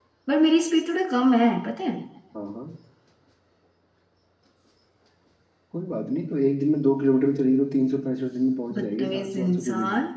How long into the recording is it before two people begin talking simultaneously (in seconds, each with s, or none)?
8.7 s